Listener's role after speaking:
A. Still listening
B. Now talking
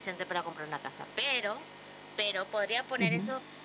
A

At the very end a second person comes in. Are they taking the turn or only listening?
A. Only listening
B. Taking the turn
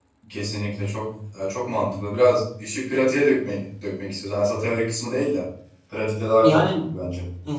B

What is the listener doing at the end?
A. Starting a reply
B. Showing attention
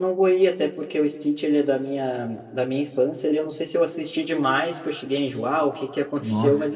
B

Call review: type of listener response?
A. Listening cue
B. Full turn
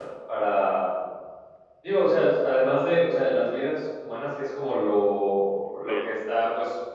A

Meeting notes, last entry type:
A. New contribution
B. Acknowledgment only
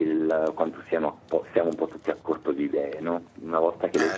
B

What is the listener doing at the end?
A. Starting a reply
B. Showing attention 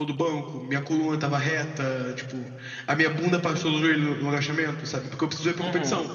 B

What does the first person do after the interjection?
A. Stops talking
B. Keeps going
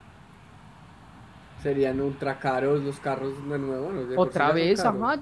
A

